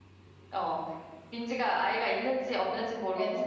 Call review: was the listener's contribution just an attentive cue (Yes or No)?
Yes